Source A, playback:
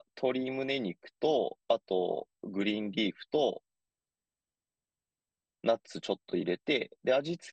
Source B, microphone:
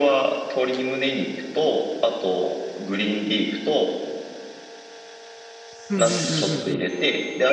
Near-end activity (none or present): present